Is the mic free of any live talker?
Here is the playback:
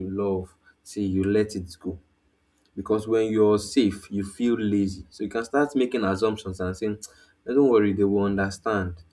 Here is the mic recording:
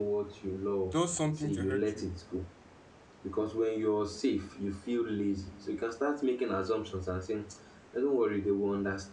No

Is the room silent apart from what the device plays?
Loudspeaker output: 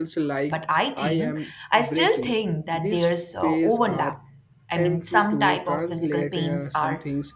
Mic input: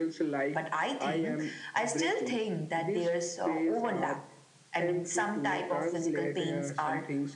Yes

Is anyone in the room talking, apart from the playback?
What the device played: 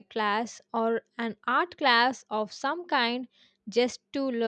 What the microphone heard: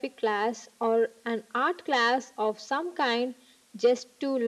No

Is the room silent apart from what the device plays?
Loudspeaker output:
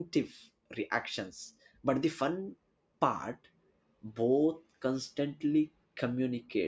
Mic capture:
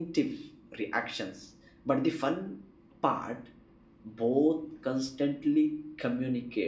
Yes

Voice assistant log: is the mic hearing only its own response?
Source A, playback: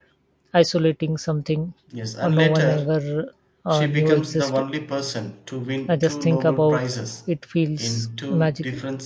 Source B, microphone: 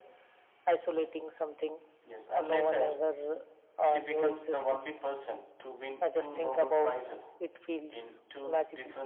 Yes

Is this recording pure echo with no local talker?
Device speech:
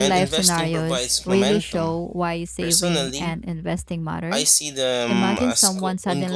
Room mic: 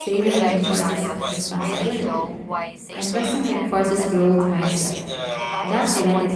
No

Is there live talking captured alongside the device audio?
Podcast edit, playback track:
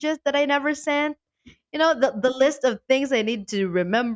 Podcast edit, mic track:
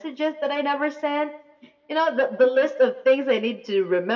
No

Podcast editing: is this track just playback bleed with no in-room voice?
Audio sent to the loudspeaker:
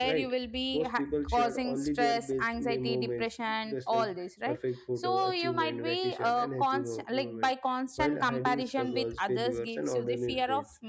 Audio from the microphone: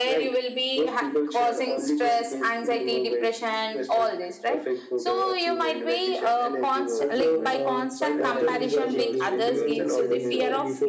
No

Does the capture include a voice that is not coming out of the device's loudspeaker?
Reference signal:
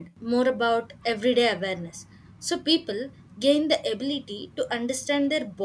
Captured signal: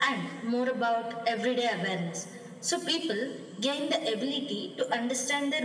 No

